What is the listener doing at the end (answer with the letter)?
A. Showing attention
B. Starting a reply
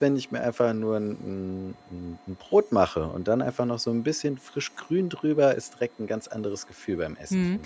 B